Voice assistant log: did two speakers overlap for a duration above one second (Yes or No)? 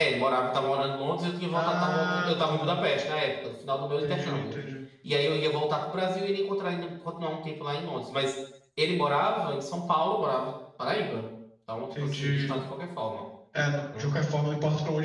Yes